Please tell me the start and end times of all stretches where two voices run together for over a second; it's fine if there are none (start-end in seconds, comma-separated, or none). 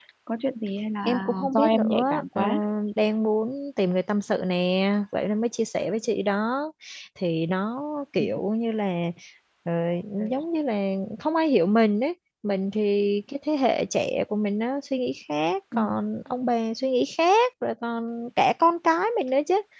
1.1-2.4